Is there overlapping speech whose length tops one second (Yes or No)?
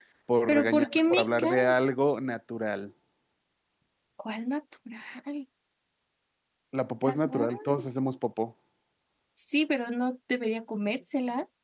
Yes